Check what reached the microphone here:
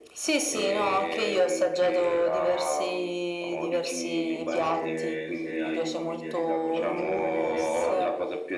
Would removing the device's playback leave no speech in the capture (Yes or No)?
No